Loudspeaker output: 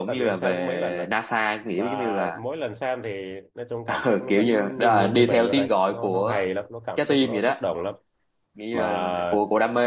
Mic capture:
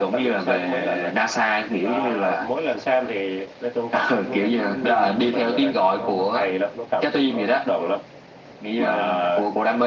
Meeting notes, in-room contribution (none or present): none